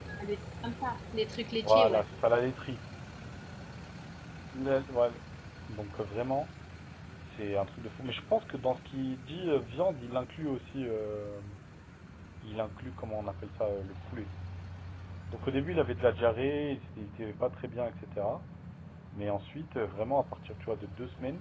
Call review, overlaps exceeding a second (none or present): none